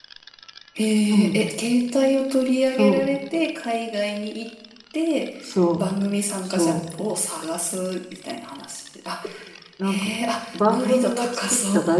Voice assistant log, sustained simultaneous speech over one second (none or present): present